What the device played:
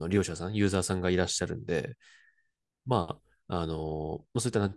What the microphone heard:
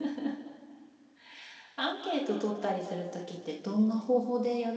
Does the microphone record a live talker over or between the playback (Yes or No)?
Yes